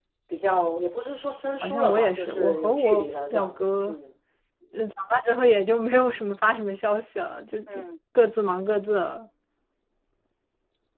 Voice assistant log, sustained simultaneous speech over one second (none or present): present